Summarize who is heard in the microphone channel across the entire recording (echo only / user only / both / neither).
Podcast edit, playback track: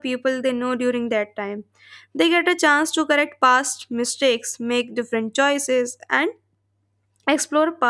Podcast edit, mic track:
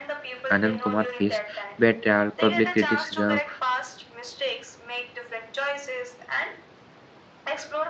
both